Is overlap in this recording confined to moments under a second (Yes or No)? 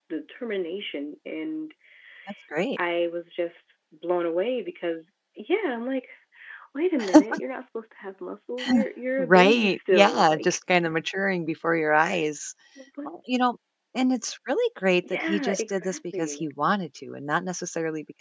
No